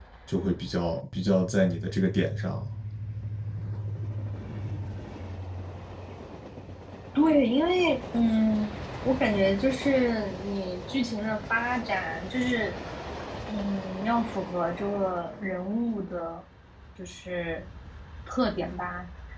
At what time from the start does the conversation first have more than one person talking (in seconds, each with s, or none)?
none